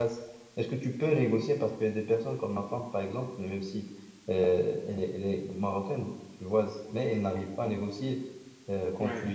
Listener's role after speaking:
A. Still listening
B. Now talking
A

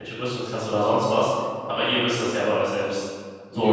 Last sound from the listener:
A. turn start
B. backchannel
A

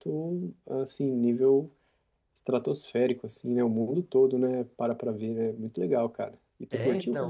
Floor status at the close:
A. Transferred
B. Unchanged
A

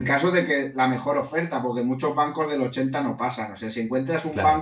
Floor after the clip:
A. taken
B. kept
B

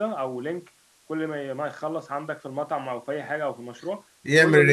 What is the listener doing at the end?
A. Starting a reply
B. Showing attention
B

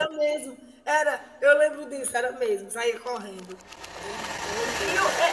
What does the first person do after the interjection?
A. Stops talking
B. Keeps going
A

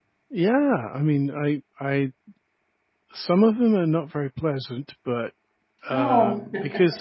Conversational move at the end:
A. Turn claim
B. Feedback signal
B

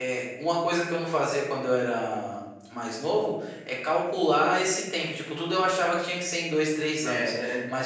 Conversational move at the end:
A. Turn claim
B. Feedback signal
B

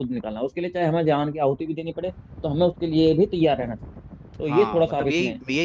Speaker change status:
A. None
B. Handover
B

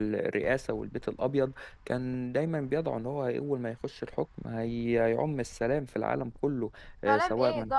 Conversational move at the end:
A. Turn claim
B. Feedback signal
A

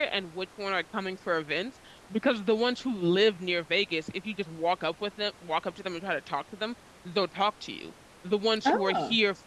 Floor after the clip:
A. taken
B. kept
B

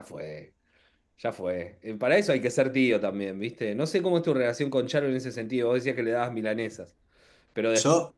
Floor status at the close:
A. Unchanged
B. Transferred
A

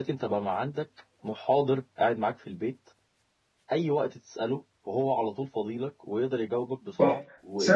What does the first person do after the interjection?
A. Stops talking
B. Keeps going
A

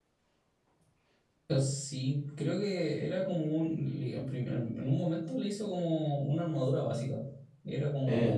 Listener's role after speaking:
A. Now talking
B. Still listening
B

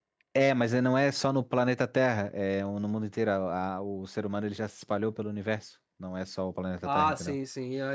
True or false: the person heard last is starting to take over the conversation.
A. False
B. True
B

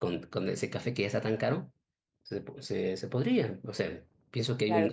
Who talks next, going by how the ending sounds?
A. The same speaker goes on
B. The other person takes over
B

